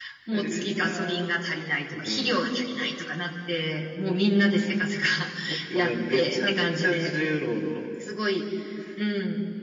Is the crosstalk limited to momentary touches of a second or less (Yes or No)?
No